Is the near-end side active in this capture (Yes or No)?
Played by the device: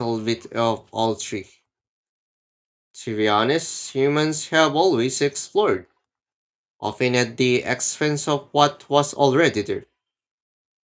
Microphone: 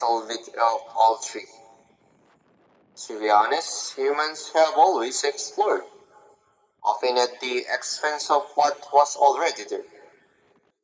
No